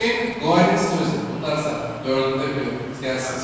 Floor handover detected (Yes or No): Yes